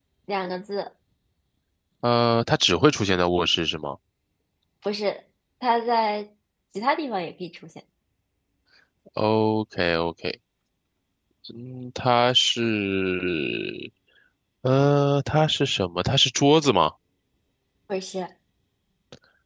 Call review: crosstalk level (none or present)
none